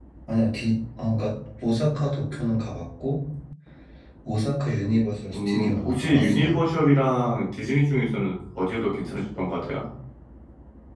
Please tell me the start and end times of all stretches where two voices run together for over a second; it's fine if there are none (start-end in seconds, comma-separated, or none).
5.3-6.6